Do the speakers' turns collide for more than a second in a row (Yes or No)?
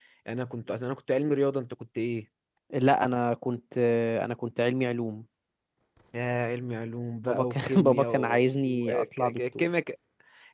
Yes